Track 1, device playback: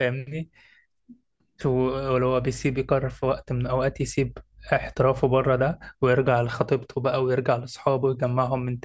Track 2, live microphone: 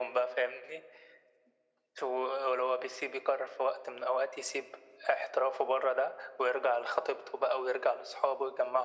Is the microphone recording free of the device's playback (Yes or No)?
No